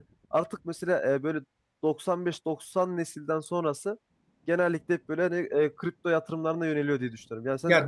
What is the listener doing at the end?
taking over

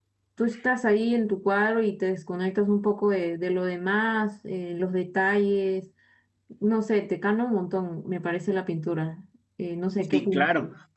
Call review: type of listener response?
taking over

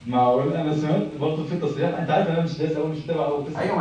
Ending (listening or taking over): taking over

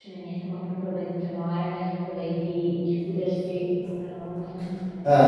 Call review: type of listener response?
taking over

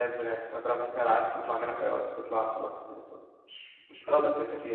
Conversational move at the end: taking over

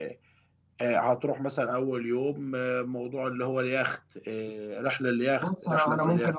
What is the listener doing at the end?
taking over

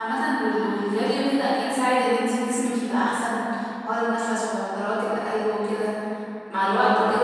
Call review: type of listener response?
listening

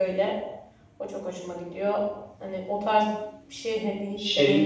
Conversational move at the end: taking over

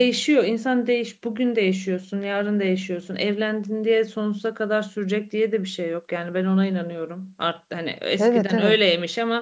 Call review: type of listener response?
listening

